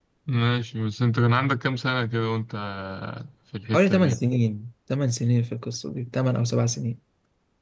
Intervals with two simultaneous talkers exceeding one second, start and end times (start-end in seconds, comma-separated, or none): none